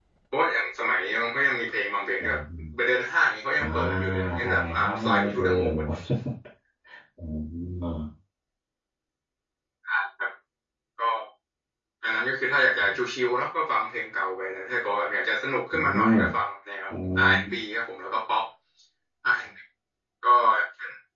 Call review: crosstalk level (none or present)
present